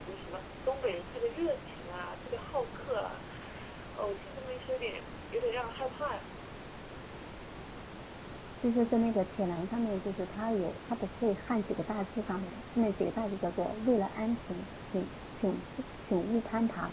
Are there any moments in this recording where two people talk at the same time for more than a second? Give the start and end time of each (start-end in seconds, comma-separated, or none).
none